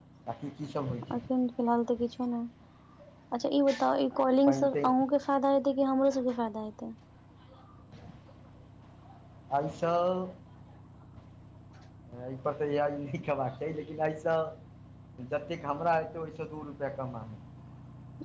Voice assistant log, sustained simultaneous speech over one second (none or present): none